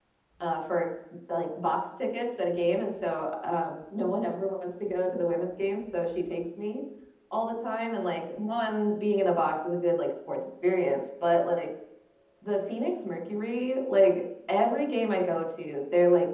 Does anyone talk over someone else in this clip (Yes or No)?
No